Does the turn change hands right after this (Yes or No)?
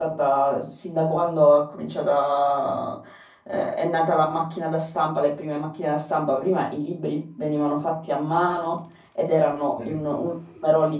No